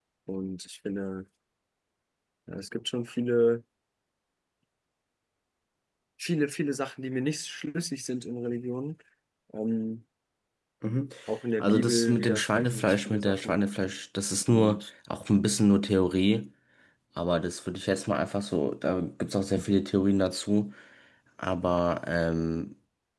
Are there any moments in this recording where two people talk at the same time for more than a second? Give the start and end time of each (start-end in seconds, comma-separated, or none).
11.6-13.6